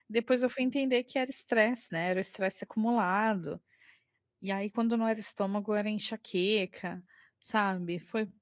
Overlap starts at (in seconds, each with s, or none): none